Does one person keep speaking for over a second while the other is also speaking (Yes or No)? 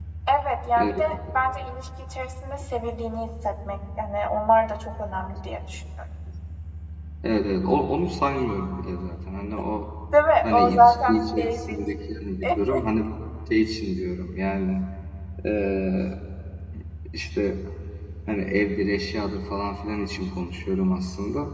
Yes